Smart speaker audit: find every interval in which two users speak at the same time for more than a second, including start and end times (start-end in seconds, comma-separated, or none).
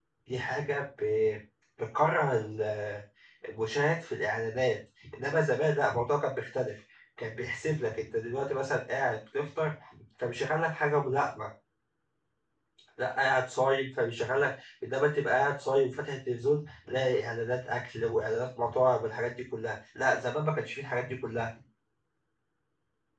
none